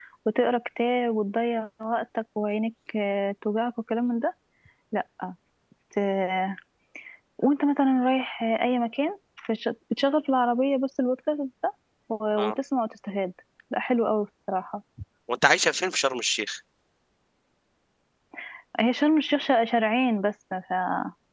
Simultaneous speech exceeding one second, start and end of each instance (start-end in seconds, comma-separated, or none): none